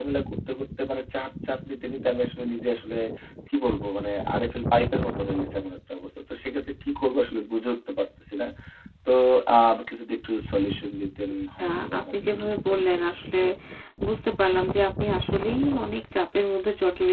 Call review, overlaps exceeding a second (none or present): present